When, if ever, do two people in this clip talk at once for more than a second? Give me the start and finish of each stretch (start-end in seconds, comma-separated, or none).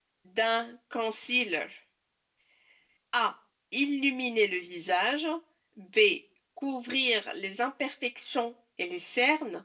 none